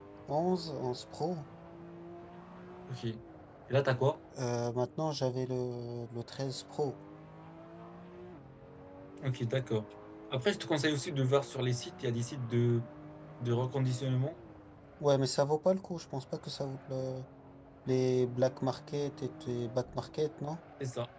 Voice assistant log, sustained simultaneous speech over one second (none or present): none